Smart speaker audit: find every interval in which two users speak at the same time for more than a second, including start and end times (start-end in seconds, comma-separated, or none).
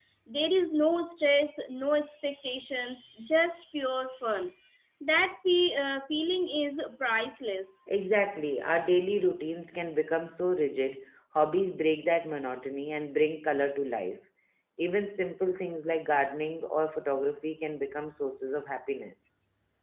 none